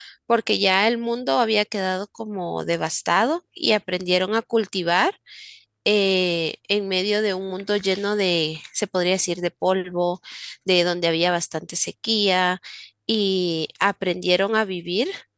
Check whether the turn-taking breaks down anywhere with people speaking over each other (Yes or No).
No